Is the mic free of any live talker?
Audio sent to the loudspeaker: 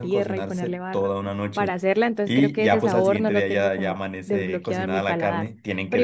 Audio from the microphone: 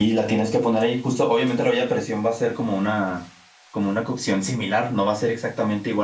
No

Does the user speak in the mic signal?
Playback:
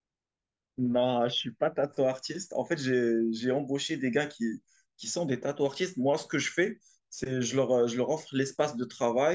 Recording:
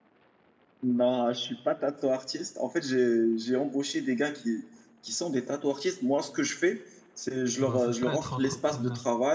Yes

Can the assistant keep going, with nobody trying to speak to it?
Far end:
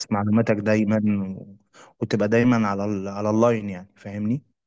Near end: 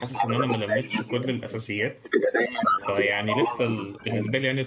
No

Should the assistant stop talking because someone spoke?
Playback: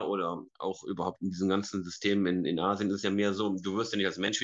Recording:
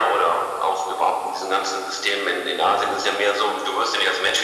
No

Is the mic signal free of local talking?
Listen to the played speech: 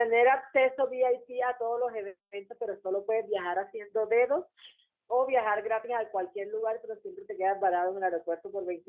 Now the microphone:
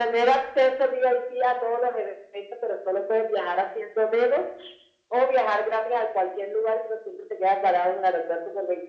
Yes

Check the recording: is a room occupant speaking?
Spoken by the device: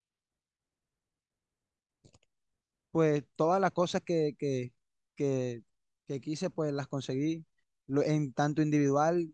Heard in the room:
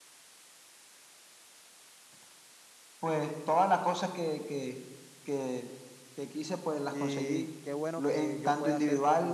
Yes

